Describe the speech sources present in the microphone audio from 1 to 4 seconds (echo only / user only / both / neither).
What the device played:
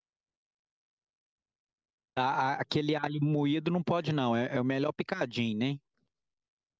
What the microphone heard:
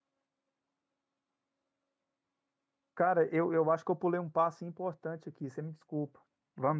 user only